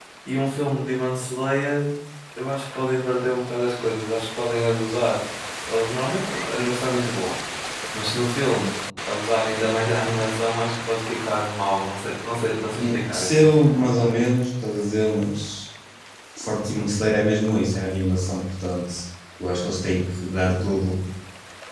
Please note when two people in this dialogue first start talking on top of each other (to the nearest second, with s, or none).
13 s